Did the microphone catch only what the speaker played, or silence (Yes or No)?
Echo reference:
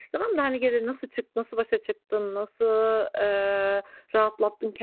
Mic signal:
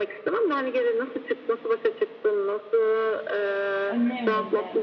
No